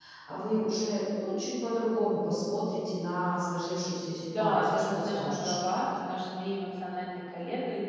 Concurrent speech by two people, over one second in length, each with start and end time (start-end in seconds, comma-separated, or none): 4.3-5.6